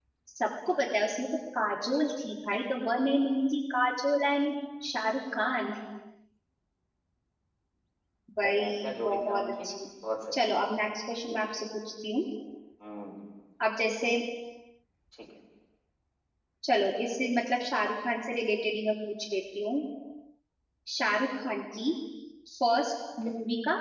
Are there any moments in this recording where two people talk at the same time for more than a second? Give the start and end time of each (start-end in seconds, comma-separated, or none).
8.5-9.7